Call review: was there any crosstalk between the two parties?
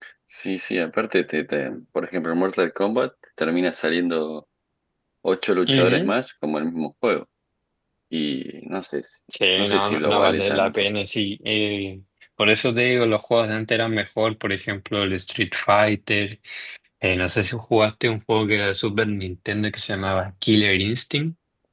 Yes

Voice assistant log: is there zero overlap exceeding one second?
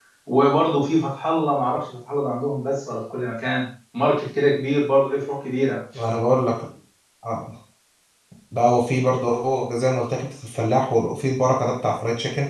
Yes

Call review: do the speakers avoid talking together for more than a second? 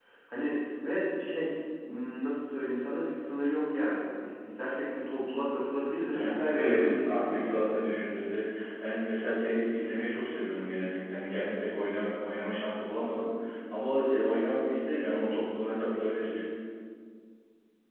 No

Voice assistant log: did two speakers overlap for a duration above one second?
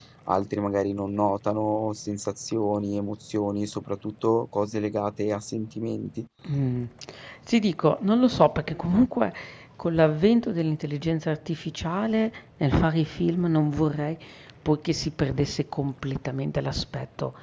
No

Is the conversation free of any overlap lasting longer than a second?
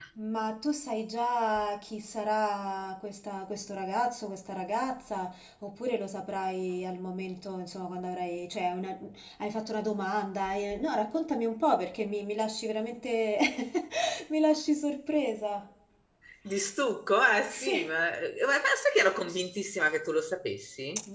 Yes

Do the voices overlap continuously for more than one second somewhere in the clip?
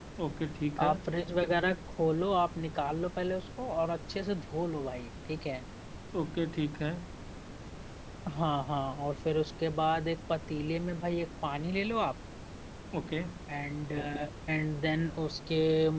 No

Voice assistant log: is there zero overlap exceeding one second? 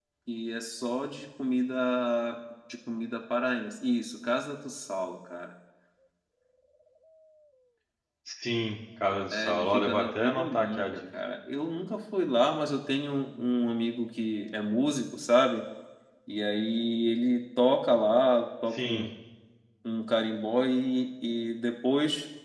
No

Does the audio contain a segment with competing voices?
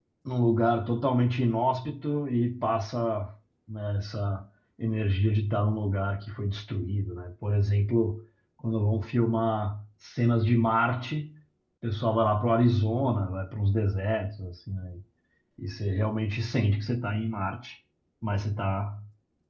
No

